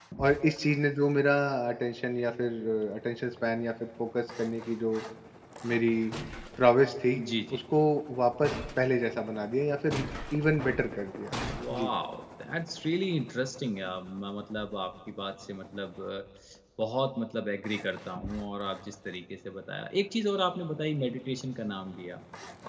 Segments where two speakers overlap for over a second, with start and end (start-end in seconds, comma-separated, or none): none